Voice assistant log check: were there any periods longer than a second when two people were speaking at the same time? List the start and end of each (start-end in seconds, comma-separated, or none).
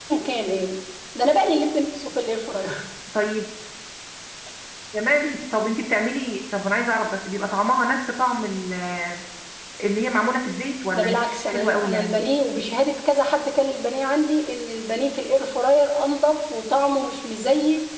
10.9-12.2